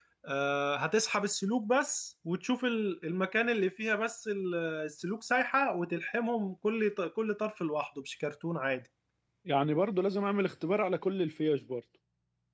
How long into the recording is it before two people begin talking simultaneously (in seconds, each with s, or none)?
none